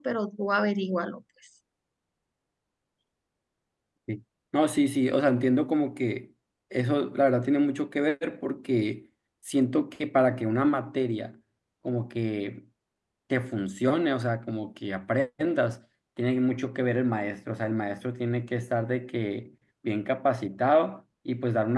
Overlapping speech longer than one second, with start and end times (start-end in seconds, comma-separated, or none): none